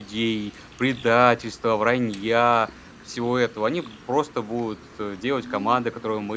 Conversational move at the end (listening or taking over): listening